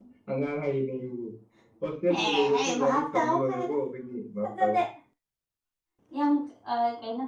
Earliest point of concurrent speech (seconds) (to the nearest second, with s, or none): 2 s